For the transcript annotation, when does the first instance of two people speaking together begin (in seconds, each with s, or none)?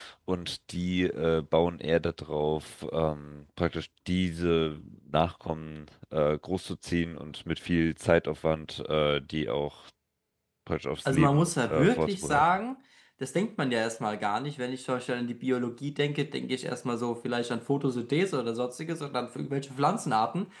11.1 s